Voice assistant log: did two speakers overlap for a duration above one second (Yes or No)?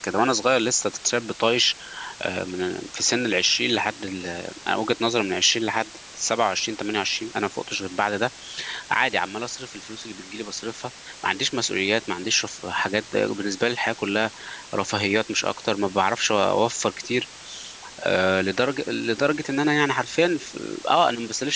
No